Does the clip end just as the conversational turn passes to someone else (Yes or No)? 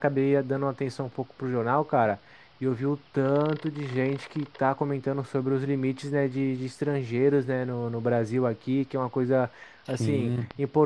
No